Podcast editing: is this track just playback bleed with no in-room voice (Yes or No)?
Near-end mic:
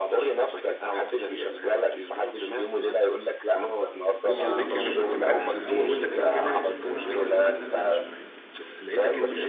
No